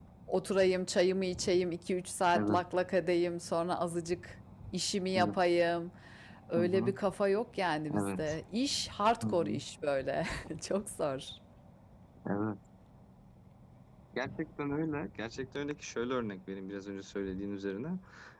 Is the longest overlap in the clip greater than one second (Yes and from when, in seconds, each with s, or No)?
No